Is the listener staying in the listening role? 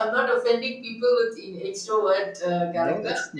No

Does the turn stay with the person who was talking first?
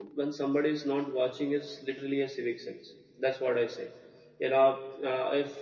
Yes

